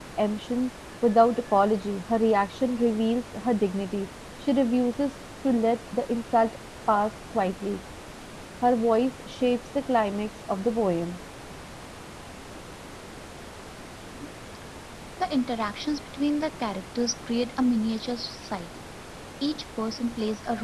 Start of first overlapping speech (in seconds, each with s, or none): none